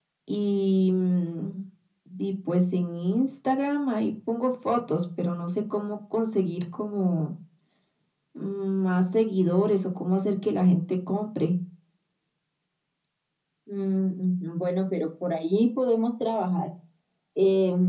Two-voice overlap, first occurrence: none

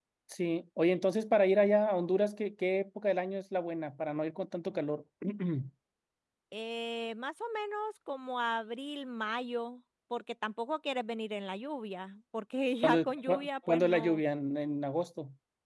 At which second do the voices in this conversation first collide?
12.8 s

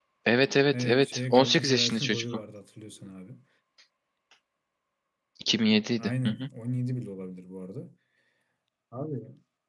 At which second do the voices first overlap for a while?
0.7 s

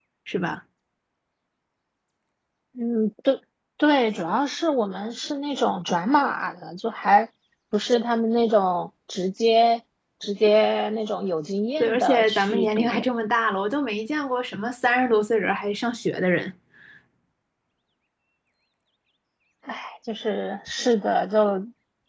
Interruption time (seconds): 11.8 s

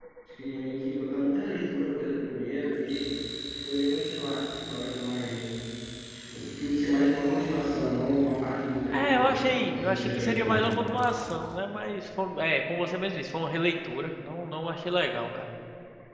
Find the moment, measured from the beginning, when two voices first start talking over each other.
8.9 s

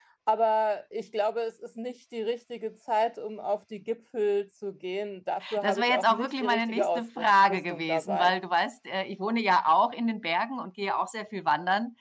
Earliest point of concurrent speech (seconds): 5.4 s

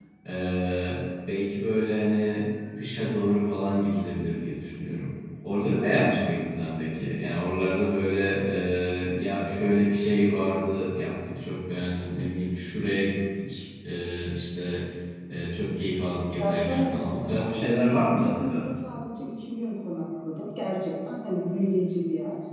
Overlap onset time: 16.4 s

